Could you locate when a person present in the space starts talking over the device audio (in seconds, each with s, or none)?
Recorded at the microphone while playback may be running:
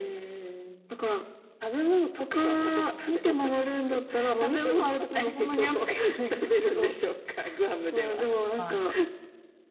8.6 s